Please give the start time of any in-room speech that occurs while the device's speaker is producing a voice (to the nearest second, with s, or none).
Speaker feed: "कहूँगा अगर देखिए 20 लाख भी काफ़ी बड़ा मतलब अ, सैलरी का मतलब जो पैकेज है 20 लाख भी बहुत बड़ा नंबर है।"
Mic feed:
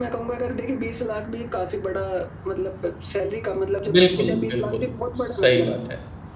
4 s